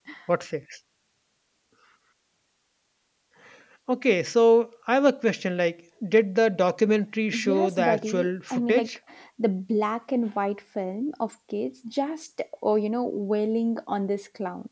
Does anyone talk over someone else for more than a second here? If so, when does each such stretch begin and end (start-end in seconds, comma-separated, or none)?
7.3-8.9